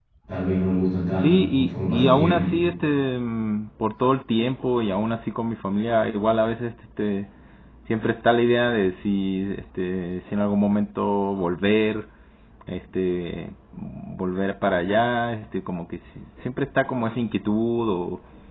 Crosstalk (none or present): present